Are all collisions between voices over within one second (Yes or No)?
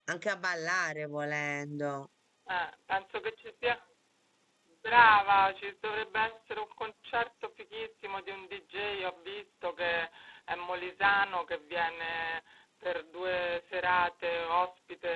Yes